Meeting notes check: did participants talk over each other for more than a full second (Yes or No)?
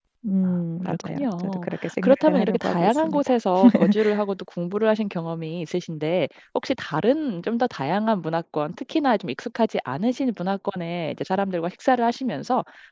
Yes